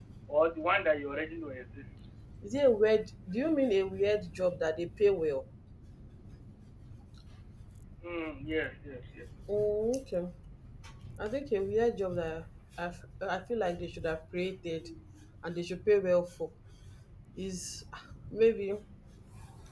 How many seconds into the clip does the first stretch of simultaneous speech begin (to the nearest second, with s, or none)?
none